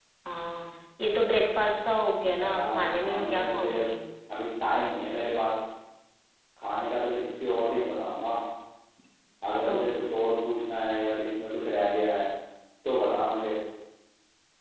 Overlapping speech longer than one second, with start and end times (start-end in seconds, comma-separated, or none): 2.4-3.7